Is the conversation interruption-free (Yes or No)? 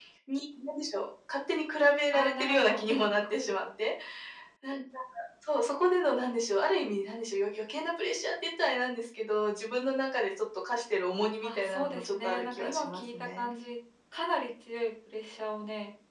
No